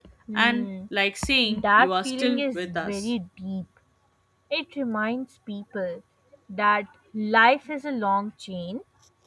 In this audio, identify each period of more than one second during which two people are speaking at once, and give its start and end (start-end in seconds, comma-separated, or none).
1.5-3.1